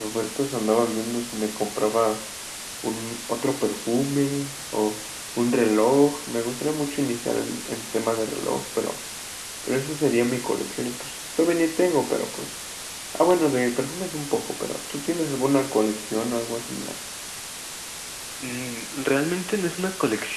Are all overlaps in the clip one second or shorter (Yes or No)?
Yes